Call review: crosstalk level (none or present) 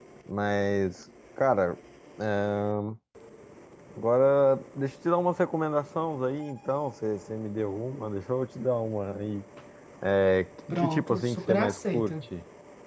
present